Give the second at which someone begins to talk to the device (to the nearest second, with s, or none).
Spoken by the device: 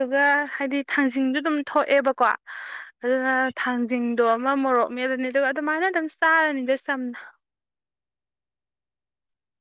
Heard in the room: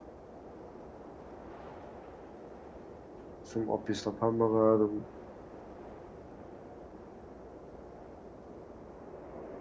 4 s